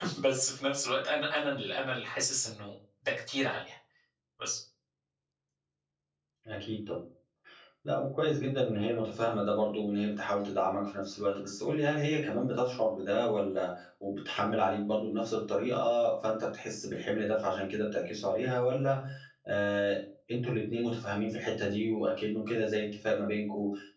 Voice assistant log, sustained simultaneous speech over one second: none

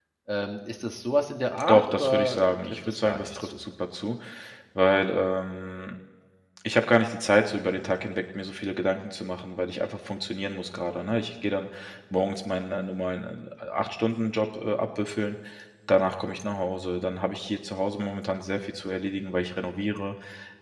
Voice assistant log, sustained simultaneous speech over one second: present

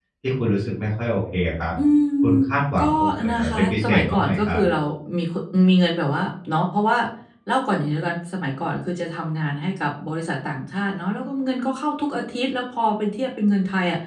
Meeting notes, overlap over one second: present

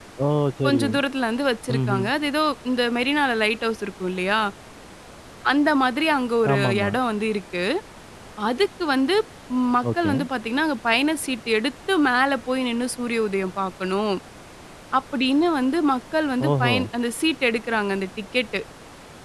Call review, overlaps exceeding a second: none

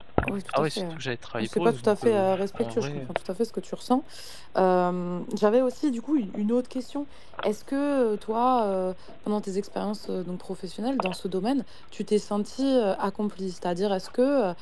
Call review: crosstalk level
present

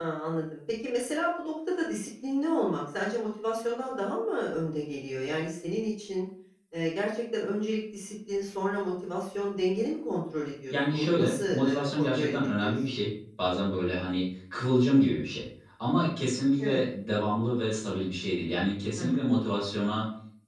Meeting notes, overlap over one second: present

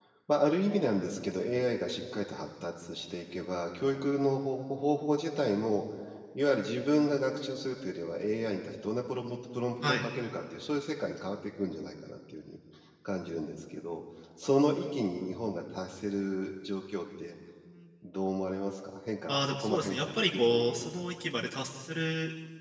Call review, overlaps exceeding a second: present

